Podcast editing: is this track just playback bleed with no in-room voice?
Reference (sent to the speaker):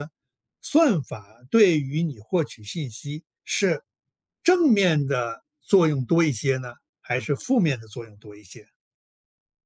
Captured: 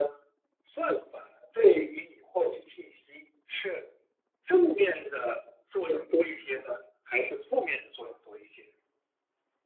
No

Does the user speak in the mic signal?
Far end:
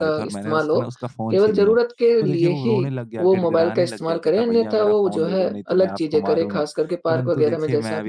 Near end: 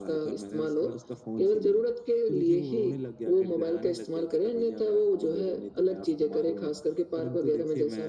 No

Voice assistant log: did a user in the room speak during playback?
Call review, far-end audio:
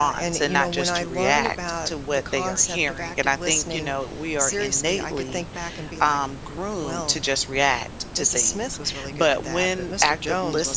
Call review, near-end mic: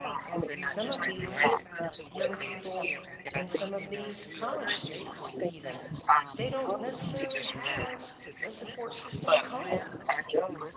Yes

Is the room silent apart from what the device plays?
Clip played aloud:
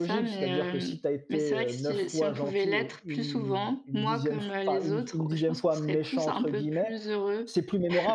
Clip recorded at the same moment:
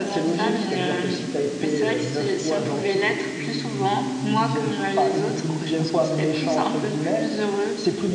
Yes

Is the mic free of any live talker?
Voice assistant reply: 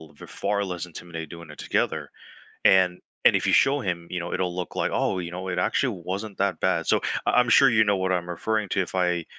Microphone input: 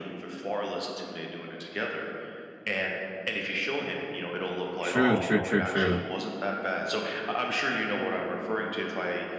No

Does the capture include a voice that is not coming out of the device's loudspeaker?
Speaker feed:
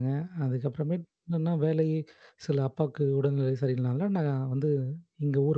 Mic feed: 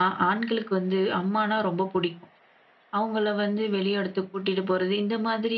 Yes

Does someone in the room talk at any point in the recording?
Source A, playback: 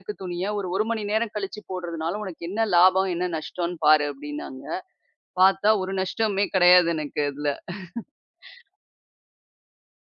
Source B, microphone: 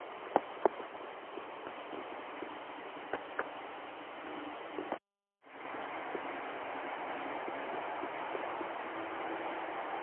No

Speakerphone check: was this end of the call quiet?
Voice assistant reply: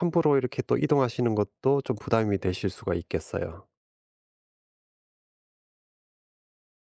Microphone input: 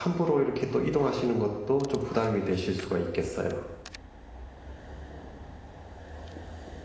Yes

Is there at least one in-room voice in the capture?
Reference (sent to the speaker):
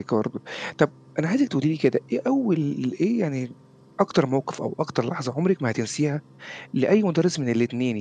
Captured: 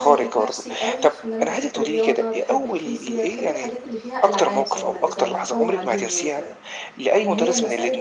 Yes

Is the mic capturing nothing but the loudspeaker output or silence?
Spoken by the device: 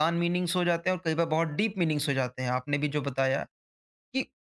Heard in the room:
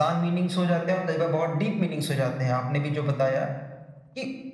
Yes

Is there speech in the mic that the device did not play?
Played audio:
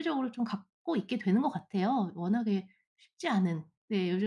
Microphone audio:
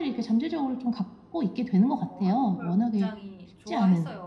Yes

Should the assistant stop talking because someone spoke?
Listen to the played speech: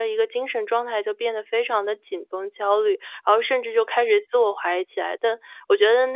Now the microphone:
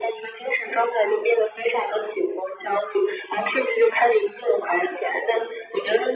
No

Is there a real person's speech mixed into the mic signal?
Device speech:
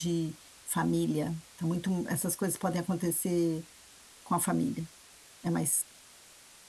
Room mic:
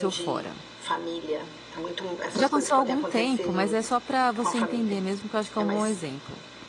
Yes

